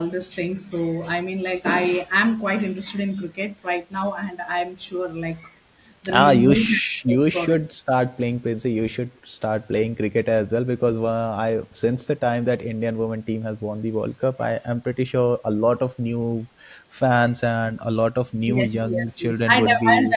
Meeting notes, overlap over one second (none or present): present